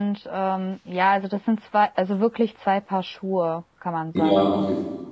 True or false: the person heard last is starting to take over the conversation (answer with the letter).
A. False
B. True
B